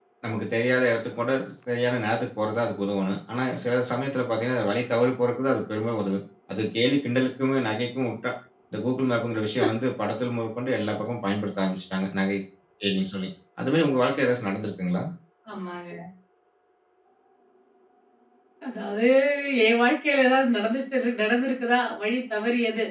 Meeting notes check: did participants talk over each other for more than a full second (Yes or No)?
No